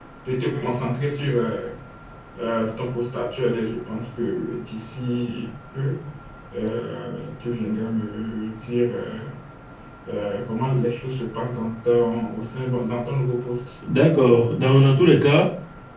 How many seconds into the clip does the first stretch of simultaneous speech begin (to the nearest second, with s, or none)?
none